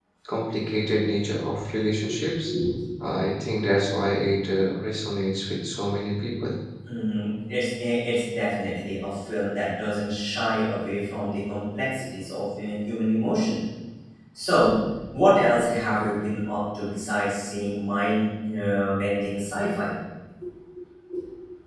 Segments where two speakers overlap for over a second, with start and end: none

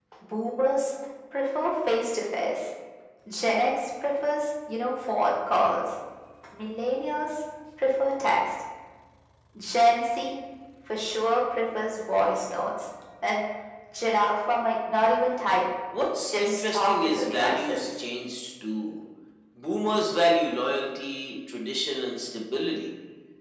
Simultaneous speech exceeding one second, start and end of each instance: 16.3-17.8

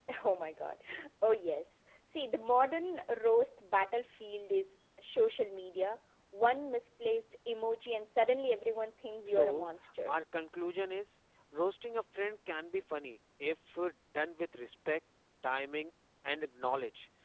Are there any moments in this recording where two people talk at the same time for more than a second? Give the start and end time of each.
none

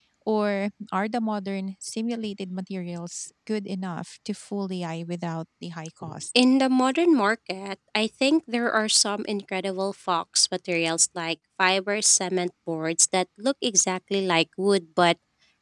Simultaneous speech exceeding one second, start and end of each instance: none

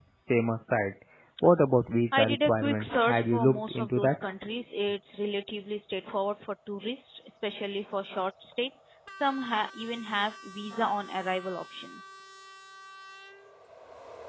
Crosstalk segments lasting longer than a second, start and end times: 2.1-4.1

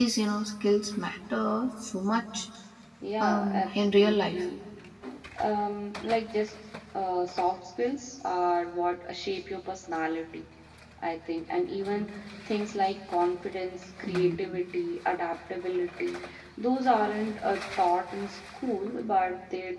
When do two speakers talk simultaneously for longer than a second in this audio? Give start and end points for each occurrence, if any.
3.2-4.4

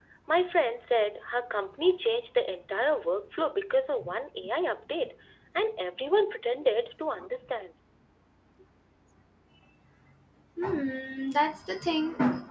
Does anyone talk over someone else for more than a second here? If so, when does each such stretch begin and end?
none

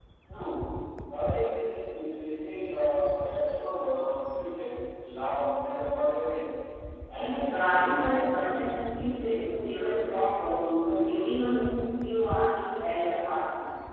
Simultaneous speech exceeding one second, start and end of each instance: 7.2-8.5

